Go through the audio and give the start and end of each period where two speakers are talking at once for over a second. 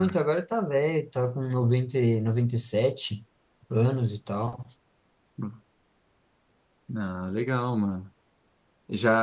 none

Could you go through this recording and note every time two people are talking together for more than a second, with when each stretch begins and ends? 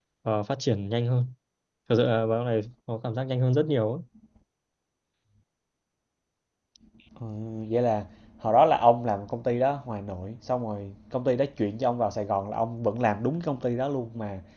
none

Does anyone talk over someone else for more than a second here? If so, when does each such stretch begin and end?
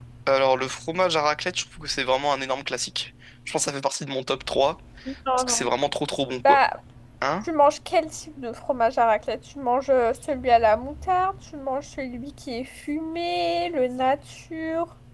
none

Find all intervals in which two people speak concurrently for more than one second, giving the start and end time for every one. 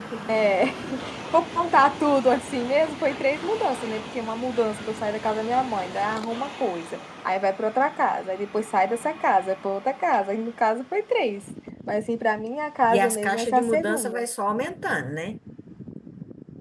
12.9-14.2

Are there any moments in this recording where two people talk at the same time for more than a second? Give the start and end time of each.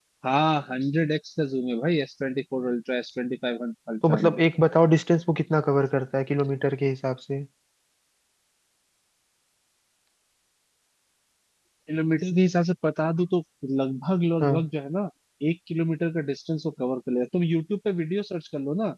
none

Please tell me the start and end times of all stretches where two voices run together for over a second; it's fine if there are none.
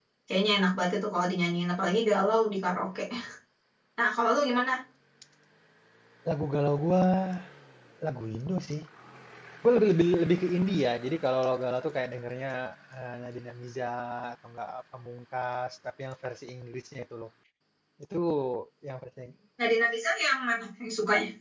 none

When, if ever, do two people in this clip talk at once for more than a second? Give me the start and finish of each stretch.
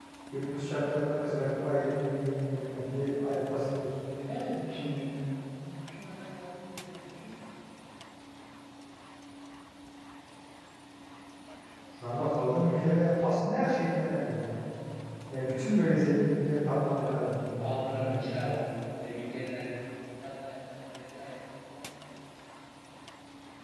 16.9-18.3

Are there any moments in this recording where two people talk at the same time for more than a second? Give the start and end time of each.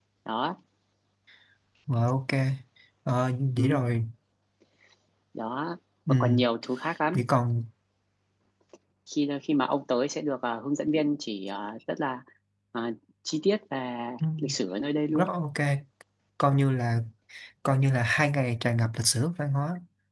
none

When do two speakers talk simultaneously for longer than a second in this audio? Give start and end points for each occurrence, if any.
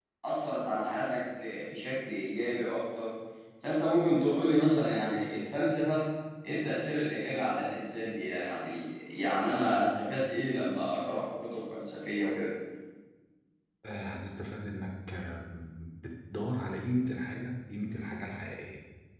none

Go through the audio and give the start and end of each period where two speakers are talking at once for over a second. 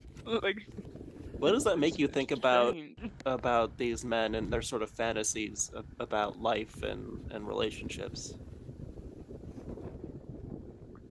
1.4-2.8

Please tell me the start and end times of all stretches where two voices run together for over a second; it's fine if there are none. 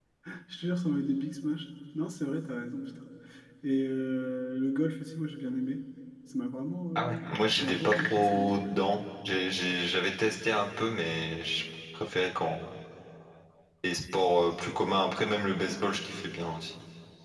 7.0-8.9

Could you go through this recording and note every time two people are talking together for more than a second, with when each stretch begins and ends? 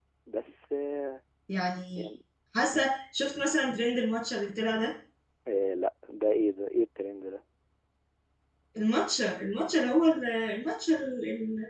none

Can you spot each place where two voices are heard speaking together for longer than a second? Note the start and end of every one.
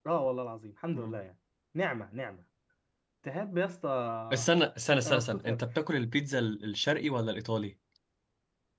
none

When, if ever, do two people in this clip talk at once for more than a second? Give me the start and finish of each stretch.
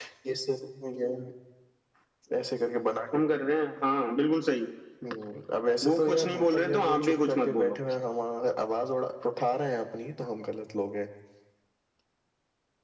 5.8-7.8

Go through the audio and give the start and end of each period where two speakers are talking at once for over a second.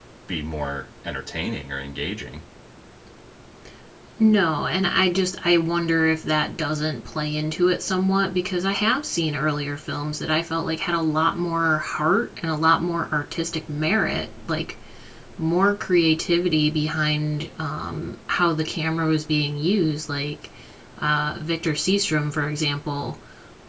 none

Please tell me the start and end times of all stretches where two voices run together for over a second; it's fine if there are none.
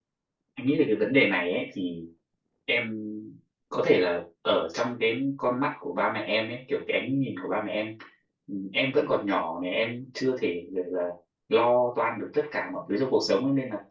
none

